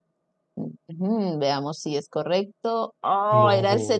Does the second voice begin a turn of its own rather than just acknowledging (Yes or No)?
No